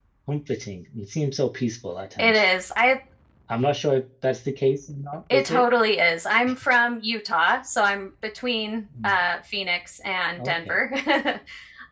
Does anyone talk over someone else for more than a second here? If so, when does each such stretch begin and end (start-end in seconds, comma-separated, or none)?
none